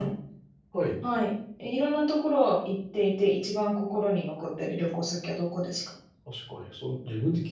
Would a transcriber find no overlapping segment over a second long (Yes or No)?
Yes